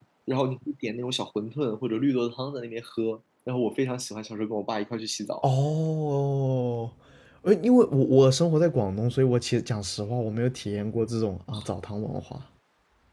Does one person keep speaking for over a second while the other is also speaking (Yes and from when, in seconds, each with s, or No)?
No